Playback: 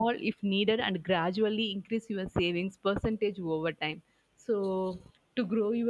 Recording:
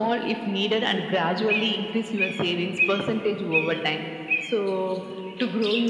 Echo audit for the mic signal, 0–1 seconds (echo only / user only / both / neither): echo only